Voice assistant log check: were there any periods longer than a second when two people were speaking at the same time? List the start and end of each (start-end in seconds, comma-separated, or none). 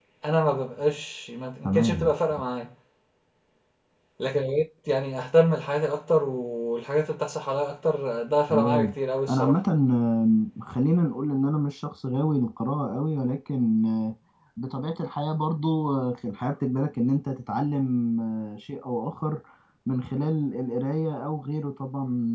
none